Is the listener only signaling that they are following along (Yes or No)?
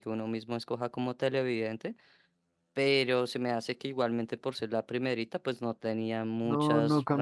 No